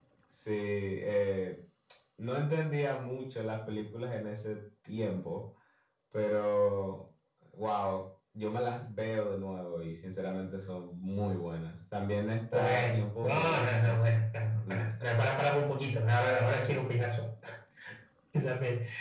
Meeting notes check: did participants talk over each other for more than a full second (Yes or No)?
Yes